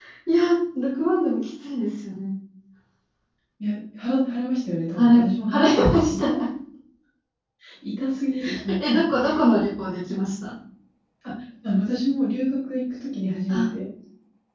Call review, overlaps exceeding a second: present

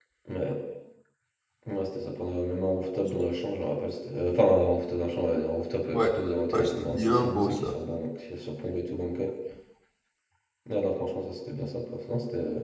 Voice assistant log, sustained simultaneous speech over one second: present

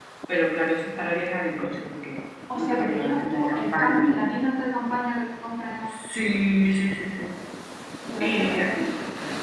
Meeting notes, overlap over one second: present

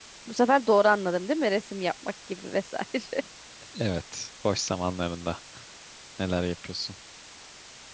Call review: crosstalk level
none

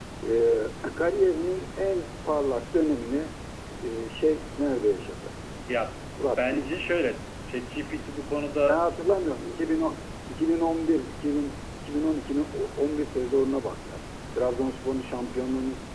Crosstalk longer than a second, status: none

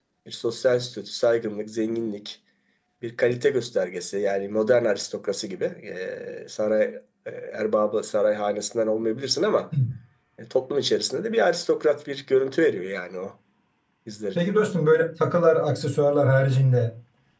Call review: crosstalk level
none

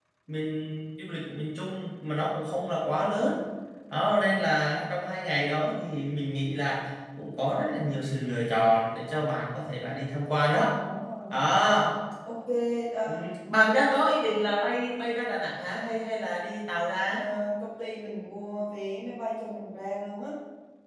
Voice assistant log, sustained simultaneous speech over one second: none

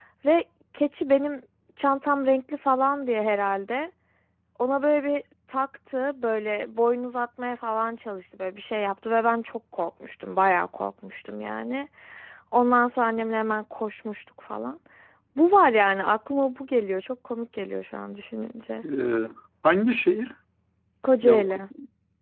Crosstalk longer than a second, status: none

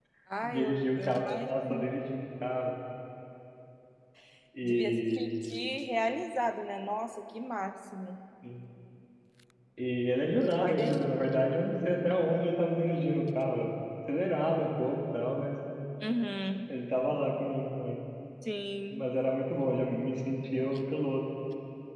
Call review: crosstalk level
present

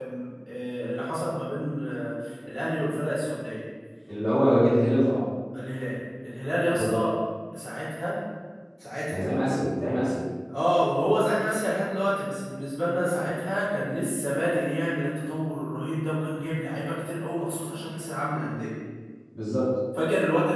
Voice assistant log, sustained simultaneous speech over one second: none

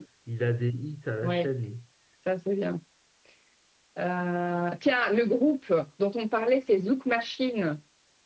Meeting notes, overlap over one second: none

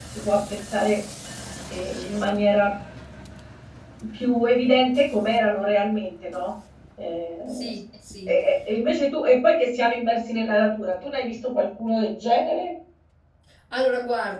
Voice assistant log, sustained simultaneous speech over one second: none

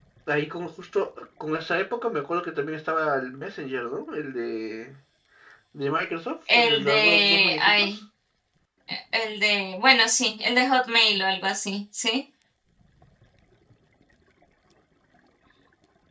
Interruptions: present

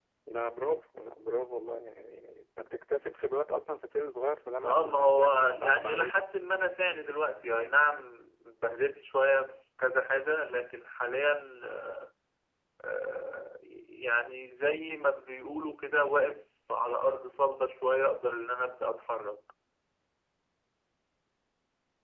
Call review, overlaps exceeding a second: present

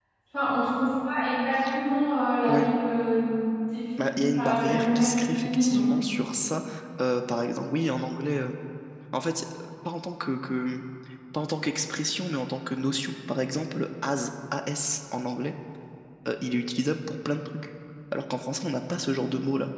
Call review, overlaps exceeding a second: present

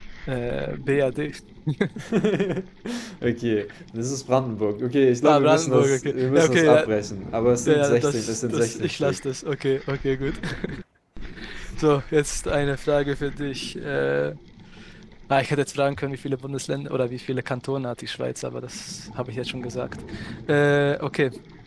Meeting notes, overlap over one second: present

